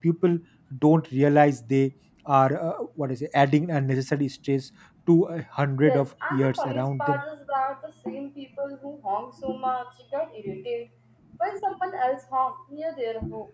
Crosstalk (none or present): present